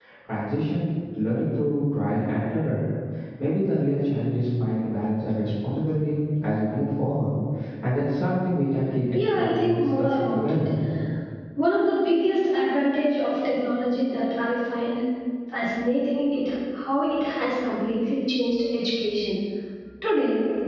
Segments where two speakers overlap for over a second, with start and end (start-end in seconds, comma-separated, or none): 9.1-10.6